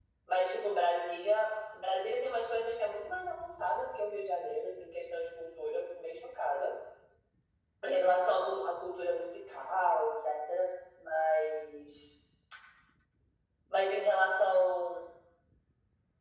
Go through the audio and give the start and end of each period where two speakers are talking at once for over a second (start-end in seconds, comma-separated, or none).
none